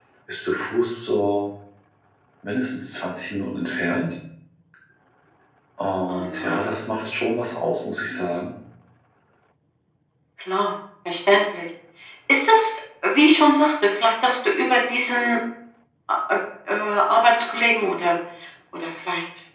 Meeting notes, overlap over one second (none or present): none